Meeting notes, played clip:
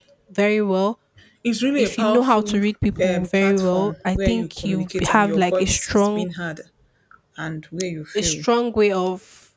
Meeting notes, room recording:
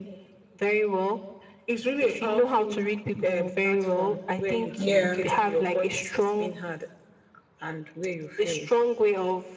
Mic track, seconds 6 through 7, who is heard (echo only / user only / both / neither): echo only